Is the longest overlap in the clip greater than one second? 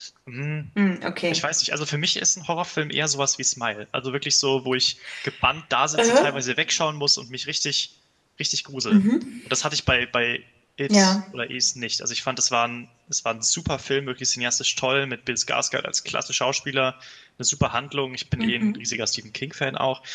No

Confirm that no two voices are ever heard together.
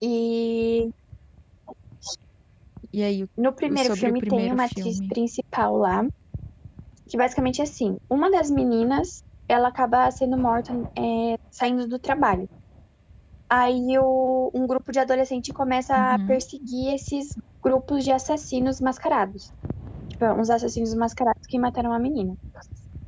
No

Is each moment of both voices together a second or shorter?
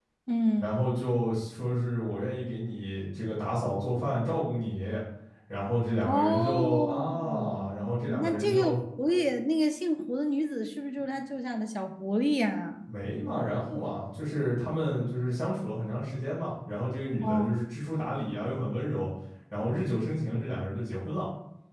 No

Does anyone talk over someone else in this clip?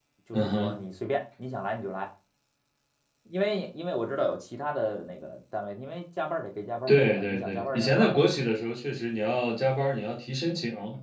Yes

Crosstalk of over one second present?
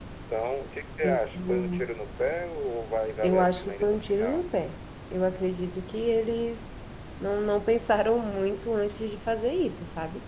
Yes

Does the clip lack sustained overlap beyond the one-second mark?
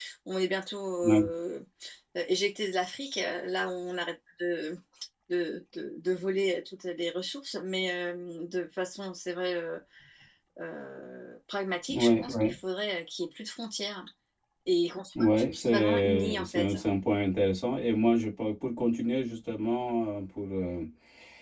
No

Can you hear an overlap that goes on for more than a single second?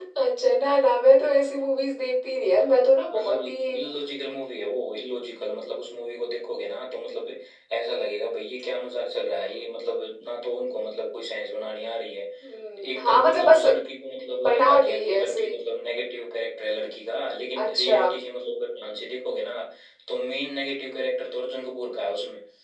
Yes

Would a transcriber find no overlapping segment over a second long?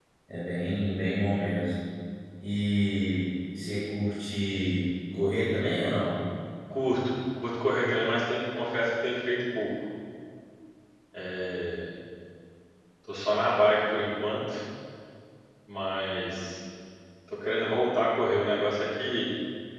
Yes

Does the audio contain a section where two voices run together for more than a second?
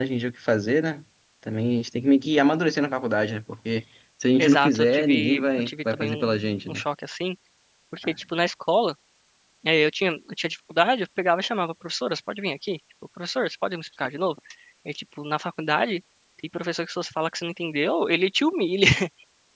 Yes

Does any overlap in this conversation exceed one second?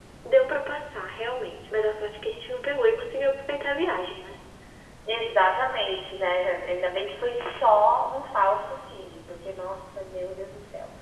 No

